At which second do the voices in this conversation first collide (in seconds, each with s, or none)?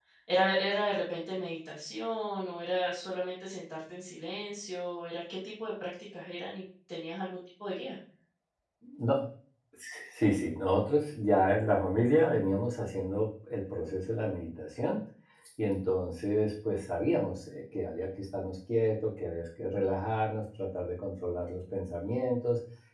none